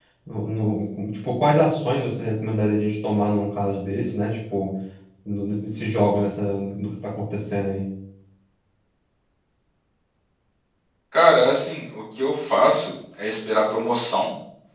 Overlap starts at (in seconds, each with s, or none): none